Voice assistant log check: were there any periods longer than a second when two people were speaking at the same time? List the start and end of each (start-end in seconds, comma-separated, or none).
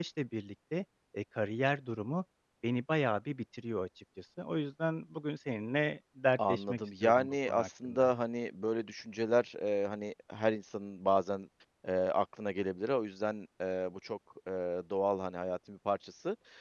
6.5-8.1